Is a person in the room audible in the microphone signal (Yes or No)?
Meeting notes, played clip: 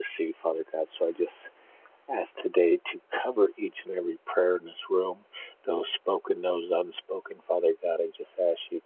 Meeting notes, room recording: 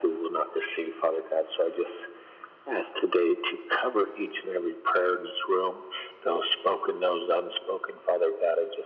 No